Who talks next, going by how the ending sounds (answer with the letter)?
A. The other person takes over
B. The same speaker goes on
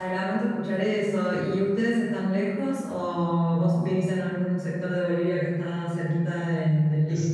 A